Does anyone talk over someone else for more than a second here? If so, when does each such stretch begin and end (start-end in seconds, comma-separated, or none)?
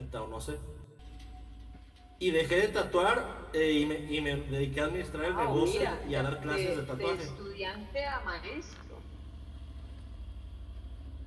5.2-7.3